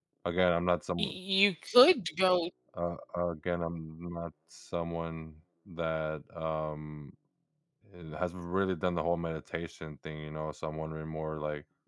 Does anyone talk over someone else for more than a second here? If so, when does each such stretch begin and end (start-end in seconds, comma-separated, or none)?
none